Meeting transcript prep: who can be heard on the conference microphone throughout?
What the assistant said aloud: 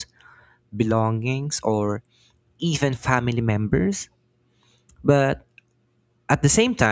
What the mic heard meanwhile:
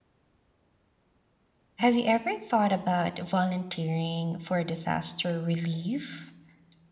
user only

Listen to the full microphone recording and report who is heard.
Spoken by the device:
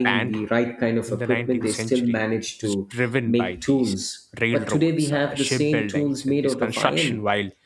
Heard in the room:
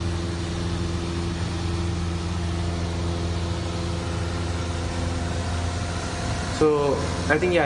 user only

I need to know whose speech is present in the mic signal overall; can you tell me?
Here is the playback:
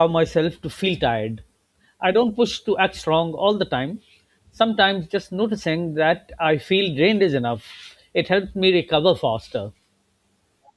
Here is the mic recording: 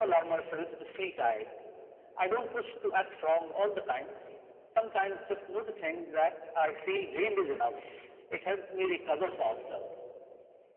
echo only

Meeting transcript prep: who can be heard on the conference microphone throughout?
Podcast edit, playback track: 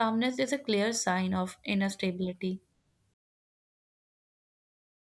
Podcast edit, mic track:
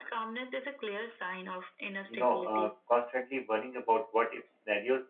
both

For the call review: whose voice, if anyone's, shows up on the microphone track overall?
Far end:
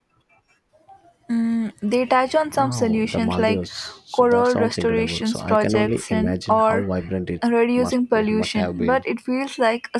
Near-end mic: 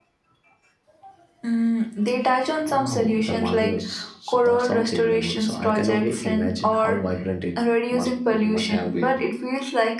echo only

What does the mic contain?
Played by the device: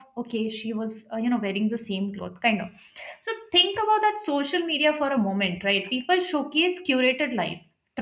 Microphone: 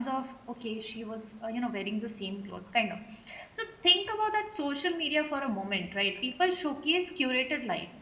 echo only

